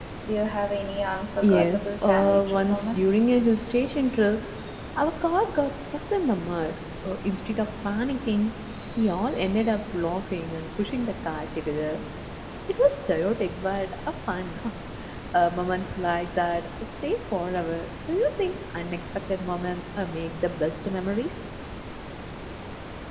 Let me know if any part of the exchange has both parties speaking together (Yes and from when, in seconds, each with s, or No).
Yes, from 1.4 s